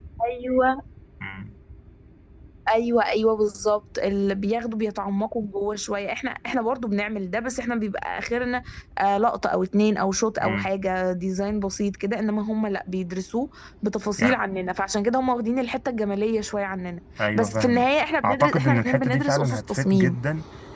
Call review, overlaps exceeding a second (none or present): present